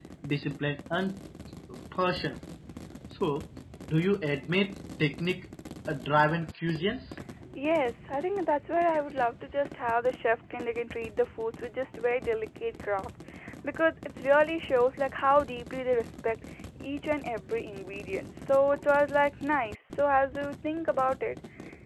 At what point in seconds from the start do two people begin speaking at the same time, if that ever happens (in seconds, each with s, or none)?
none